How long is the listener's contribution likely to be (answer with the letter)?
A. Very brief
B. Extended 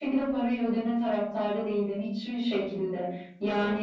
A